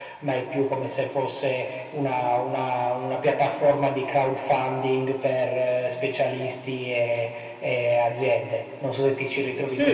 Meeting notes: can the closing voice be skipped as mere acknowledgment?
No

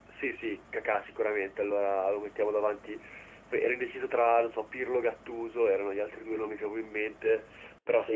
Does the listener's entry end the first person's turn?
No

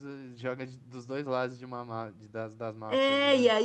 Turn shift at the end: Yes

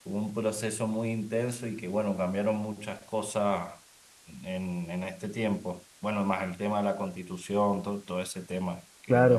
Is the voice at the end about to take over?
Yes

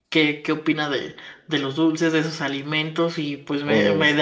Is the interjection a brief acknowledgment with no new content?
Yes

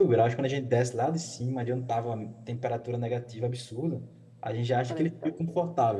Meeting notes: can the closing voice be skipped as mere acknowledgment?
Yes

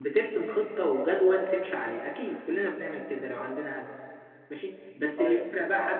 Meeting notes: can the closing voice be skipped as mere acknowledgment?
Yes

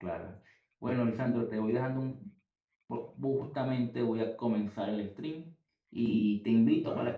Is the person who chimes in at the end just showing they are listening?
Yes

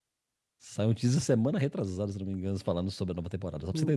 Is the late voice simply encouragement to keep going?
No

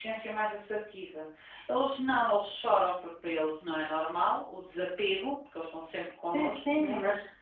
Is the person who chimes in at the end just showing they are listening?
No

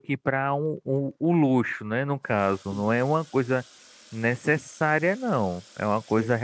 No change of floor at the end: Yes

